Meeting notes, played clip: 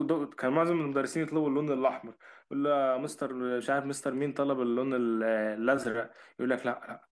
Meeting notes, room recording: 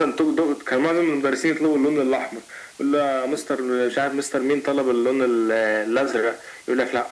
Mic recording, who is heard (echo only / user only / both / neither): echo only